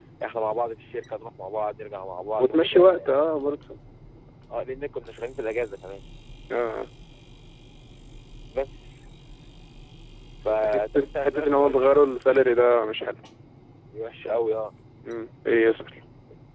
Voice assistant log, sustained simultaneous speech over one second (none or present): present